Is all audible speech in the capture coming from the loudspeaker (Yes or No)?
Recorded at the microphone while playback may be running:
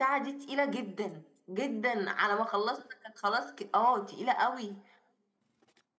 Yes